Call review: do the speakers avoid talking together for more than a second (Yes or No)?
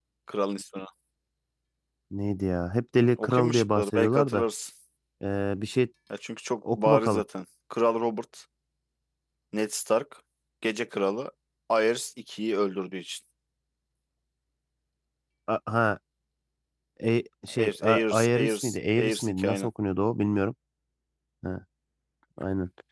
No